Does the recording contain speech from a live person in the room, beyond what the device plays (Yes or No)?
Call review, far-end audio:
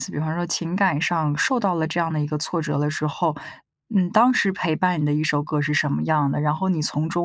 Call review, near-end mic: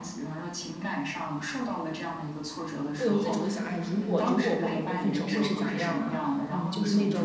Yes